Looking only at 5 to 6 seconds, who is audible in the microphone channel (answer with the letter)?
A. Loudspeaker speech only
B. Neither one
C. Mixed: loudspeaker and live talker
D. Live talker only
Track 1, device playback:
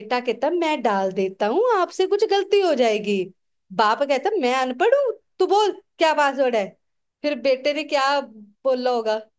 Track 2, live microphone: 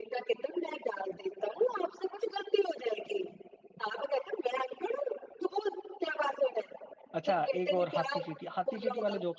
A